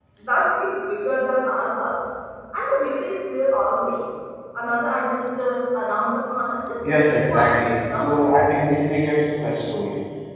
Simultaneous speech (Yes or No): Yes